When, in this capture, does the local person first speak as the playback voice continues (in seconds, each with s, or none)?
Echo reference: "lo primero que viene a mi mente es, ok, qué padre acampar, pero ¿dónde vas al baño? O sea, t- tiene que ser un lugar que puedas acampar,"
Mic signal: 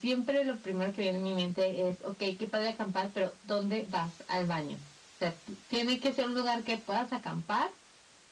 none